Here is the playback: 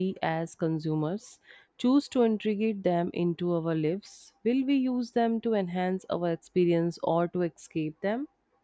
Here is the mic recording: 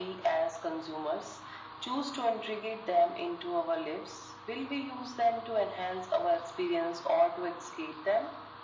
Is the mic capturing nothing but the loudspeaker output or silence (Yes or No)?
Yes